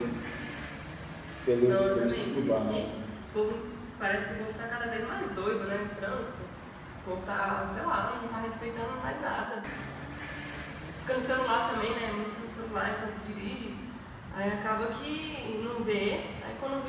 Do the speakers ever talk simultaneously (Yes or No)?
Yes